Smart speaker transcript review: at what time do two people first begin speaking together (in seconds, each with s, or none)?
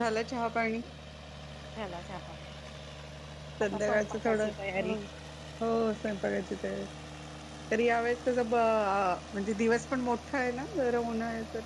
3.6 s